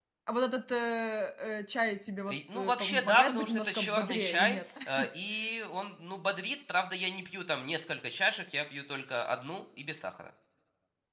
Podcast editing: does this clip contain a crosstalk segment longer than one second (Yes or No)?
Yes